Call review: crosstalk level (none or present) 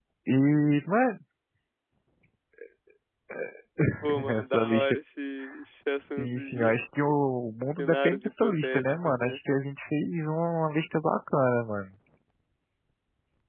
present